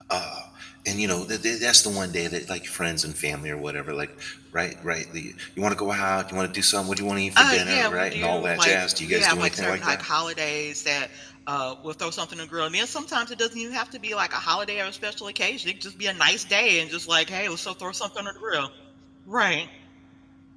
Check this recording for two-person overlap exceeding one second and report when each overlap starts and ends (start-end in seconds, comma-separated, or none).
7.4-10.0